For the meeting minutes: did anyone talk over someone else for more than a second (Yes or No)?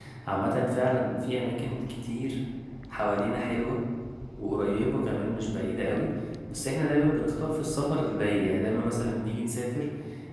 No